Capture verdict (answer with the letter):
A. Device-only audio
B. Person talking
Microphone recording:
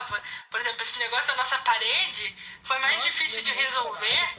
B